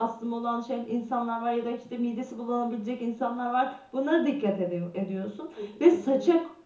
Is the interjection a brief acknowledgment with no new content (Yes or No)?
Yes